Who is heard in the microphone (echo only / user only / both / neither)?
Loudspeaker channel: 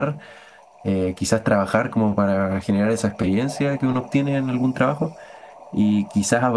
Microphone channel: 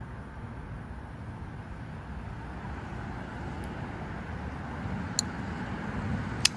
neither